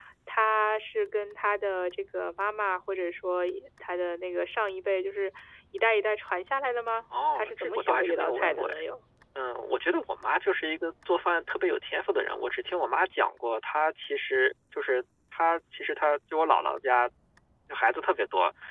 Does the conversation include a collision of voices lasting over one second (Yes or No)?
Yes